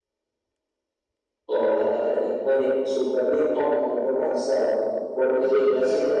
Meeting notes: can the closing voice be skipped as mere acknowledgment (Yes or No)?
Yes